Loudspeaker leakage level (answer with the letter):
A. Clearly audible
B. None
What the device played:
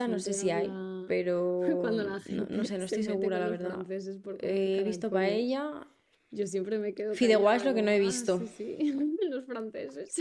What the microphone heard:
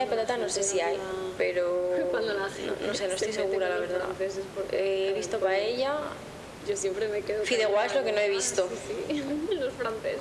A